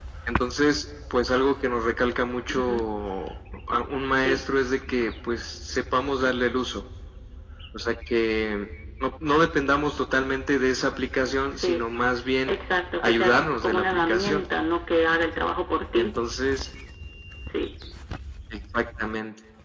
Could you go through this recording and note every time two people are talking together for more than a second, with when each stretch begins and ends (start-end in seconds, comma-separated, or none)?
13.0-14.4